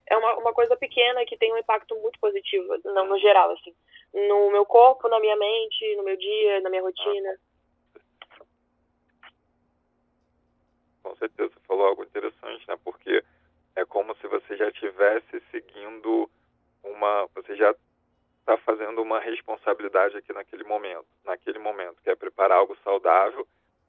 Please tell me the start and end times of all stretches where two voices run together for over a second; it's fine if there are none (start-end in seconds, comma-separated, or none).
none